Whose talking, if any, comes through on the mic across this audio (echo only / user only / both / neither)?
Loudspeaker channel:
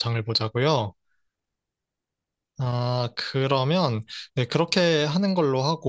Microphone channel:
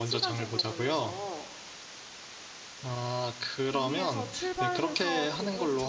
both